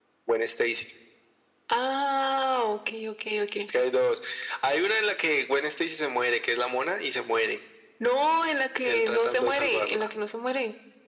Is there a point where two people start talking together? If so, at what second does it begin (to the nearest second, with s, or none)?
9 s